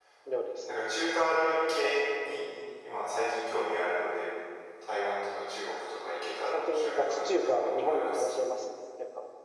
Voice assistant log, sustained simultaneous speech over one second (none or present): present